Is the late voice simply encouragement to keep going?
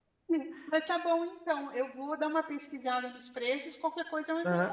No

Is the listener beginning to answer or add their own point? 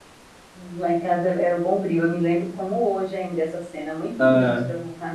No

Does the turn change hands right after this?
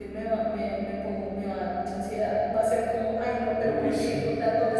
No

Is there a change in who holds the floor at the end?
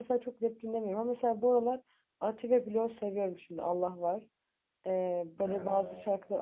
No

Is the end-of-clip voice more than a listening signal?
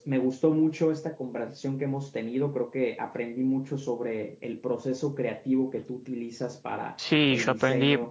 Yes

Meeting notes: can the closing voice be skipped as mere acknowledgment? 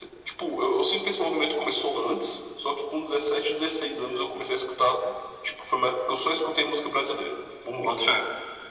No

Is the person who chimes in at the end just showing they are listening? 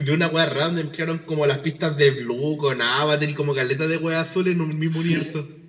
No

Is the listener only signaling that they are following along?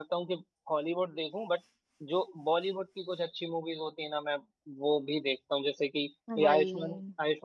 Yes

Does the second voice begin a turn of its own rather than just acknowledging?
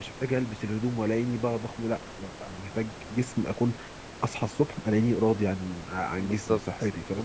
Yes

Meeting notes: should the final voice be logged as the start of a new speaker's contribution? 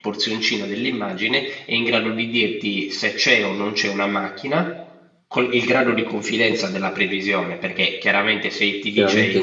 Yes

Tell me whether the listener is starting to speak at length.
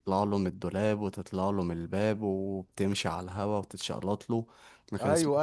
Yes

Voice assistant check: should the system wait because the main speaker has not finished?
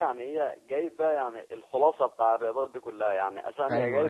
Yes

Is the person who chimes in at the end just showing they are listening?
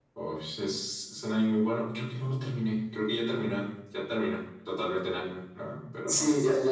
No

